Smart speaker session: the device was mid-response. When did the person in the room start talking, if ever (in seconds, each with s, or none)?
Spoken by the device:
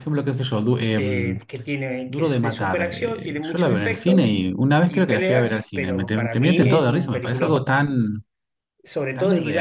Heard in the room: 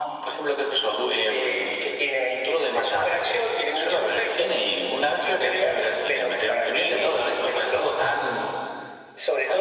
none